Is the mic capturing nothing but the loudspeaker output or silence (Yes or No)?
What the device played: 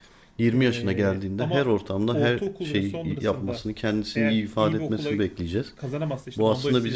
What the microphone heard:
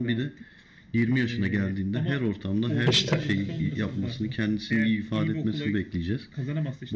No